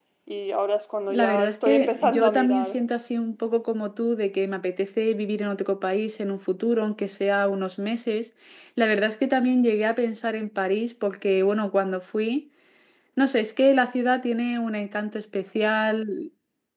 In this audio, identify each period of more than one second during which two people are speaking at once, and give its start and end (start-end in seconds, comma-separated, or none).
1.1-2.8